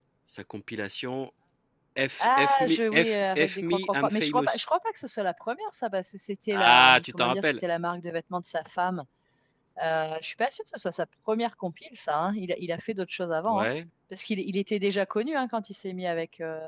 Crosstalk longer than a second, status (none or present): present